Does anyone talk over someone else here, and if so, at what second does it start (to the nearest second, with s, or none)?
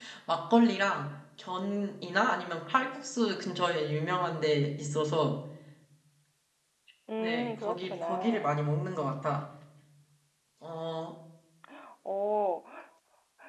7 s